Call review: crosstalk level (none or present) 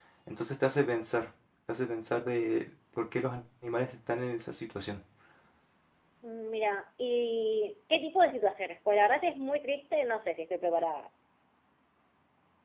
none